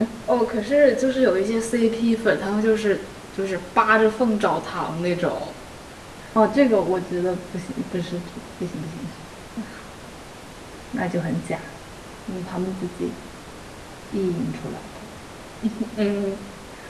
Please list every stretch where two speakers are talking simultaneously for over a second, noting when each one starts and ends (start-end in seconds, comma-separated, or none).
none